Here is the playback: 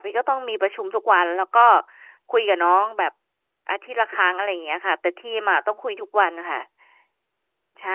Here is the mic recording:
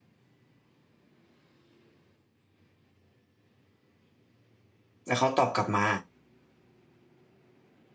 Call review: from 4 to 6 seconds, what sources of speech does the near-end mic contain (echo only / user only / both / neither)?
user only